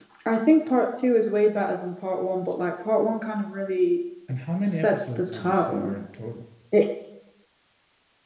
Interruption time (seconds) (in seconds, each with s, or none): 4.6 s